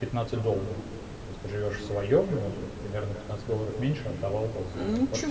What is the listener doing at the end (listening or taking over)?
taking over